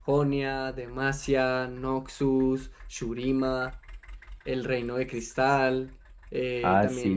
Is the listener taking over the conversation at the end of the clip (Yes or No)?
Yes